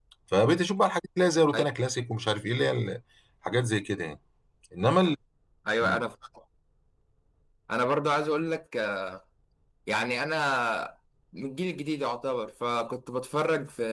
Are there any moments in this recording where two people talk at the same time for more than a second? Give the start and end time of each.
none

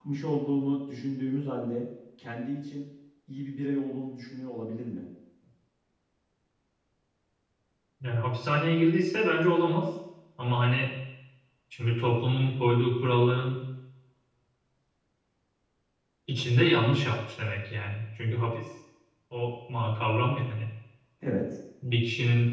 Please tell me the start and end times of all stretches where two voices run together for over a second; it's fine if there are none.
none

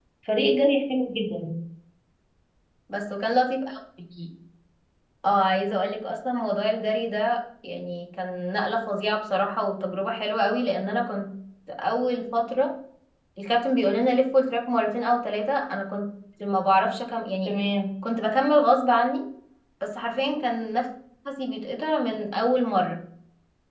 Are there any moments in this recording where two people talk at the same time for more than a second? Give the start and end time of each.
none

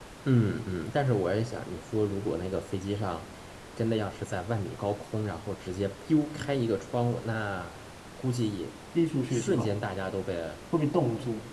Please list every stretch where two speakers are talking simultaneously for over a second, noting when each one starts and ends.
none

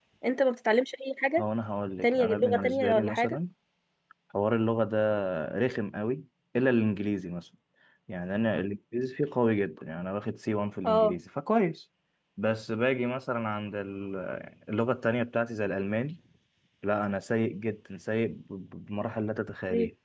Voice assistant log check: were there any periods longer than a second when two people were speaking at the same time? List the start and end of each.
2.0-3.4

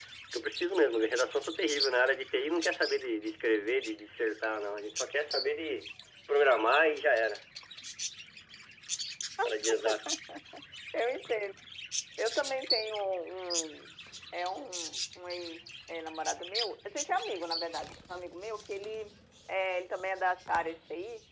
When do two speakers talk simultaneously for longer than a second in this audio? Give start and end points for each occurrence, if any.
none

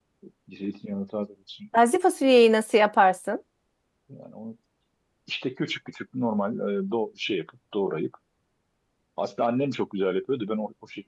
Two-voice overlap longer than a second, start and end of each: none

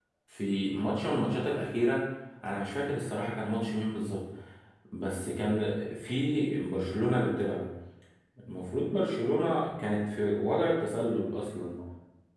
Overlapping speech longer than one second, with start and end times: none

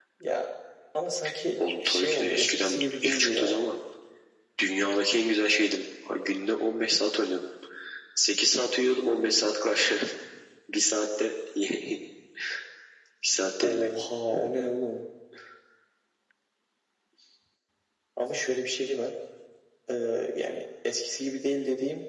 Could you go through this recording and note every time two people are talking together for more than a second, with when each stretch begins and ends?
1.6-3.7

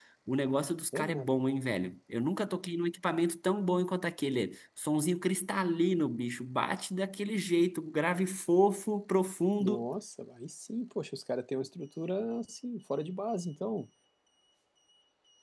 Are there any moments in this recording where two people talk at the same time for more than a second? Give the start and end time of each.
none

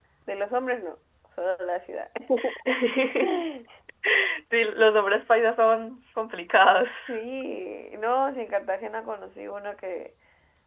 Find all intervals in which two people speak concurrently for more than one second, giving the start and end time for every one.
none

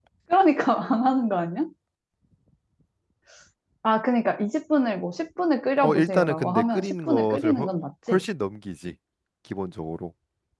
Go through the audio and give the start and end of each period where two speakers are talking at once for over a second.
5.8-7.7

